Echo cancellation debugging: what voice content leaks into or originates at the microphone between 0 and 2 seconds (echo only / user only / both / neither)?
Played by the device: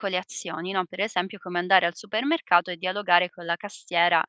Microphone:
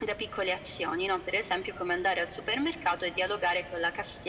echo only